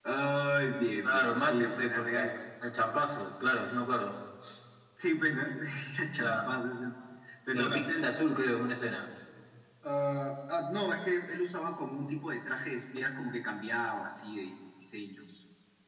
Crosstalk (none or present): present